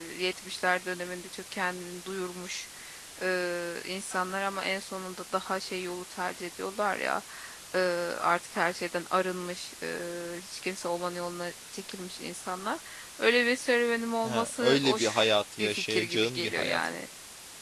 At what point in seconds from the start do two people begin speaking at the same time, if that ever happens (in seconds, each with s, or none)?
14.2 s